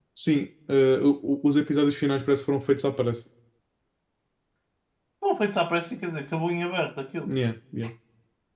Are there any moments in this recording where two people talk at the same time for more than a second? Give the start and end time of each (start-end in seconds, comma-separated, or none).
none